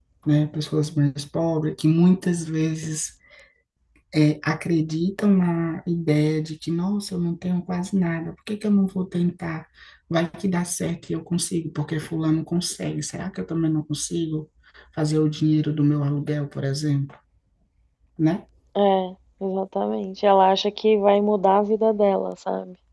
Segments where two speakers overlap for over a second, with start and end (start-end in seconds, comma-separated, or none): none